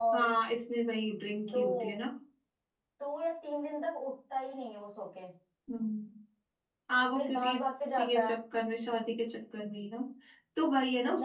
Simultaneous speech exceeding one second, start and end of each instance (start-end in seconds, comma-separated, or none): 7.1-8.4